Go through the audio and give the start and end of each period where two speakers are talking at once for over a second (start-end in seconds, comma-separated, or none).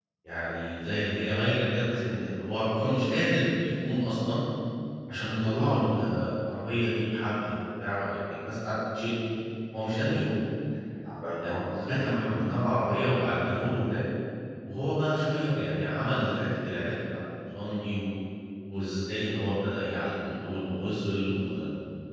none